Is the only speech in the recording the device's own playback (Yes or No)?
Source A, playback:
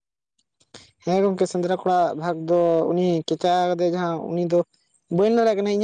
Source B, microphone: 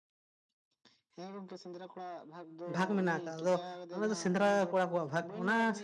No